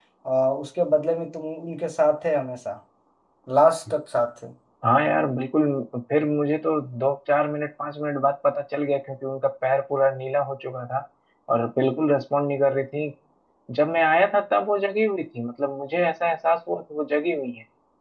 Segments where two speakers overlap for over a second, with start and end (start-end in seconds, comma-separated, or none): none